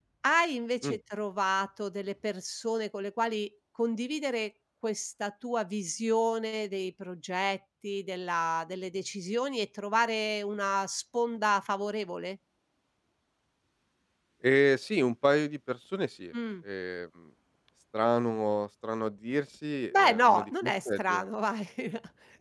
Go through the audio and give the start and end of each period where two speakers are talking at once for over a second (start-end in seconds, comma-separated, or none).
19.9-21.2